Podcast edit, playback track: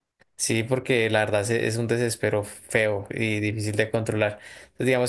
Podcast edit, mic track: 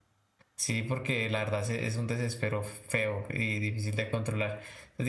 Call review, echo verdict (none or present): present